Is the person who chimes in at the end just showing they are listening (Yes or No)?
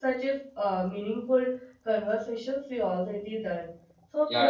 No